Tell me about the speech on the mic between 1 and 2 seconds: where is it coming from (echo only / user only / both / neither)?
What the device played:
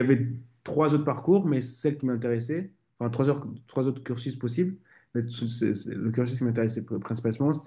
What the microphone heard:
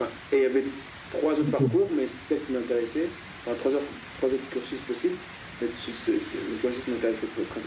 both